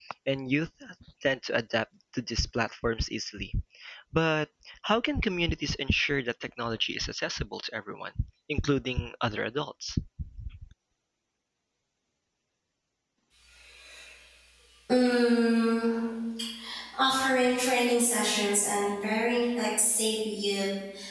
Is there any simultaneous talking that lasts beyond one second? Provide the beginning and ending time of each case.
none

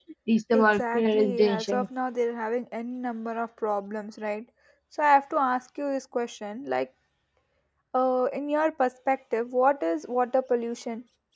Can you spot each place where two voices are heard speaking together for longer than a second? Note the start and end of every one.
0.5-1.9

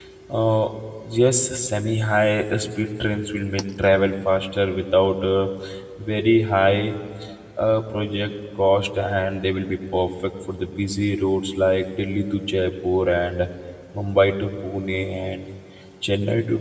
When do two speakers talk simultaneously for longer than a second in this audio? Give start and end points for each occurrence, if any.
none

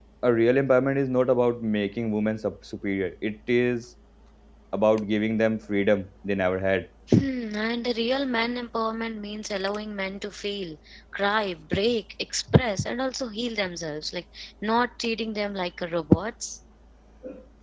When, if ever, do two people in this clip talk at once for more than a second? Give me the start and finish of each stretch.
none

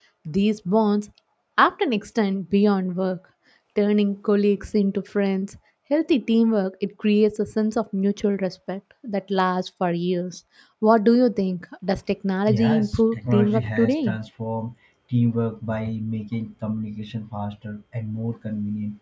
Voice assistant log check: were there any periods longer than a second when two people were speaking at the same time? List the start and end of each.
12.5-14.2

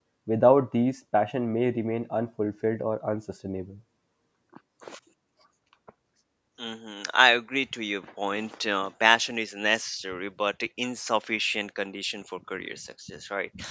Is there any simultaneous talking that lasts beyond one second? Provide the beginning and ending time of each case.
none

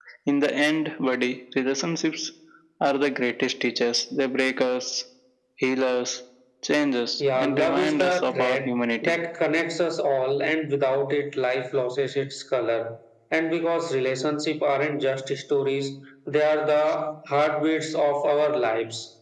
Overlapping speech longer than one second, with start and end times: 7.2-9.2

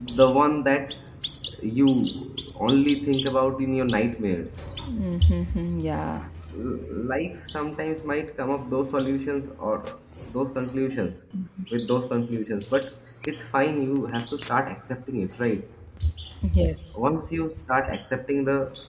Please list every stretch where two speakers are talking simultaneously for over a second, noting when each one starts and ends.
none

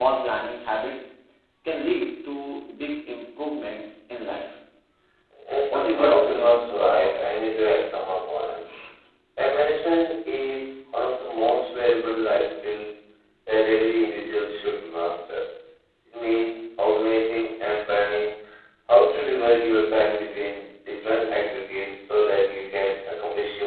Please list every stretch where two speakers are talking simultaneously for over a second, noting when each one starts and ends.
5.7-7.1

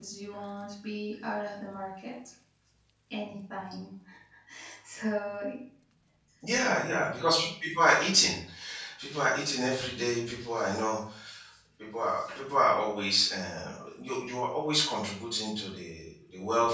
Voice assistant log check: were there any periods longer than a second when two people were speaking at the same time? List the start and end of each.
none

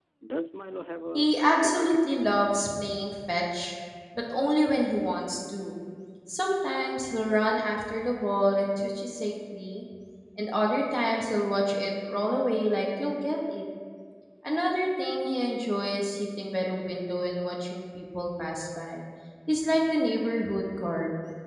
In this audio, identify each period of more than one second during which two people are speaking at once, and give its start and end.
1.1-2.4

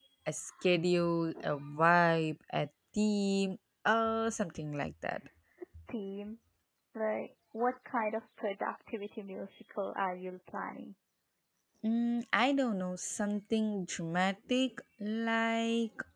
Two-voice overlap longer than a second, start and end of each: none

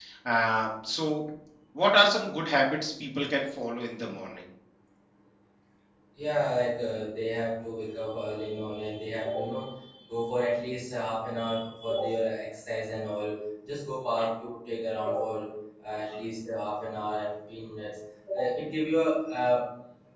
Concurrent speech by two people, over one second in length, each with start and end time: none

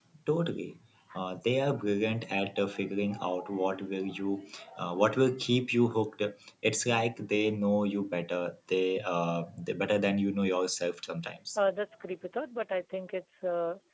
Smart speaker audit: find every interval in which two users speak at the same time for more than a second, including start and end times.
none

